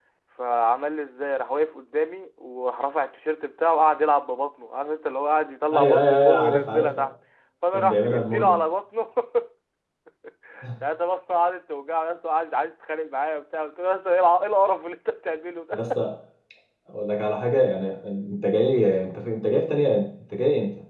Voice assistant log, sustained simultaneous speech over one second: present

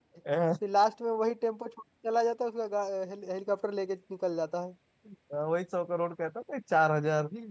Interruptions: none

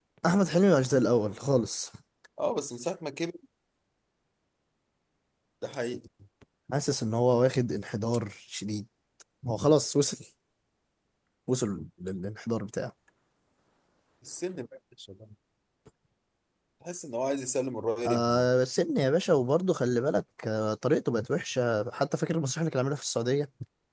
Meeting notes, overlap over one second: none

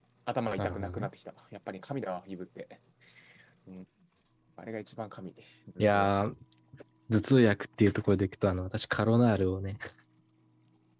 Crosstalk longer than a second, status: none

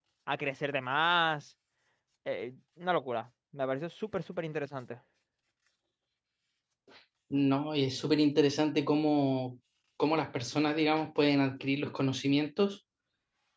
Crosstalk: none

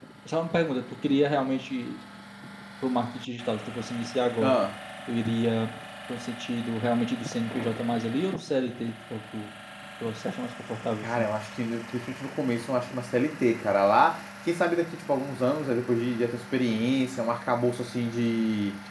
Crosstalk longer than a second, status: none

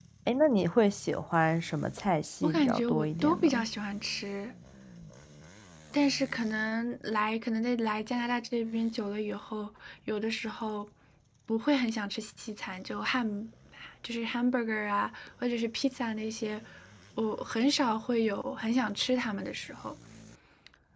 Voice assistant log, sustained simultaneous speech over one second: present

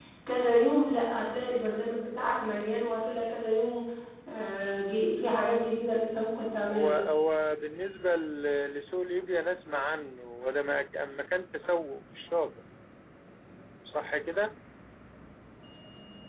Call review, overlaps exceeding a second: none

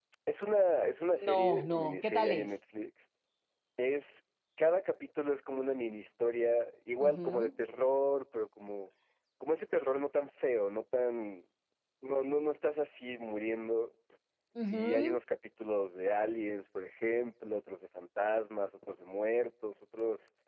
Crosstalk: present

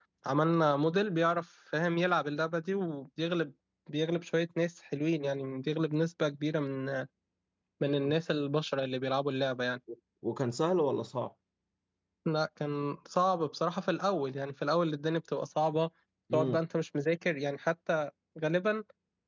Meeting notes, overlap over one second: none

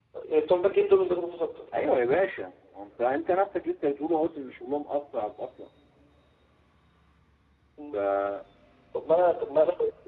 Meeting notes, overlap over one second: none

